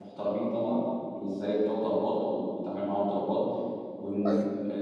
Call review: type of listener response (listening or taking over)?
listening